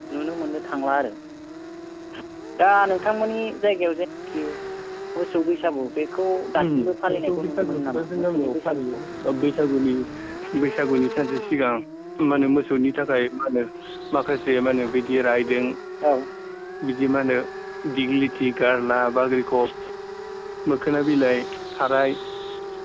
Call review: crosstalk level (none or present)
present